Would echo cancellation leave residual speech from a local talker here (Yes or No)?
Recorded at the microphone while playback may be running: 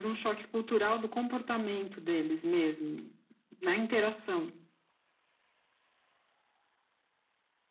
No